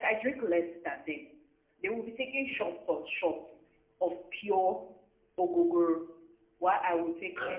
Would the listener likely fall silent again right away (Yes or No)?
Yes